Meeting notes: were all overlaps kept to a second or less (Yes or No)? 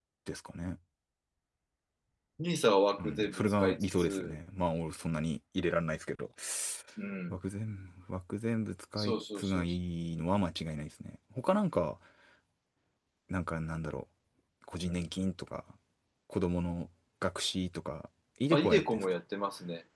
No